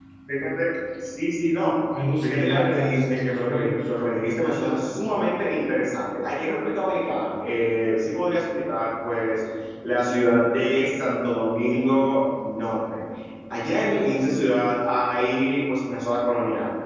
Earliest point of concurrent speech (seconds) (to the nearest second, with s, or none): 2 s